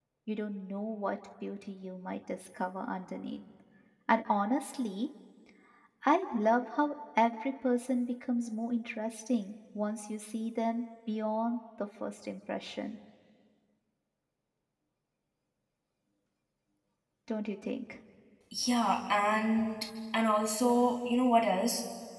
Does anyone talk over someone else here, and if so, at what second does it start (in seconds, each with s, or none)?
none